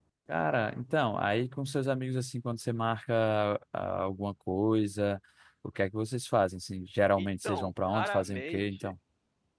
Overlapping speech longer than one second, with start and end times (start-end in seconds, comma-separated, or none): 7.2-8.9